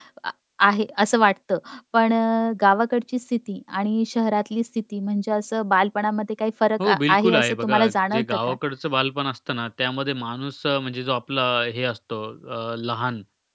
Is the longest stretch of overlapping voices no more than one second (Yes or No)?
No